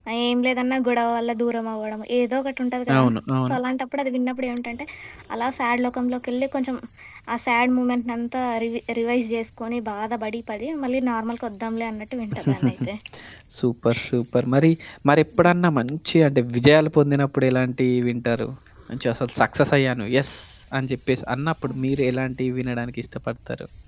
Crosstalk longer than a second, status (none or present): none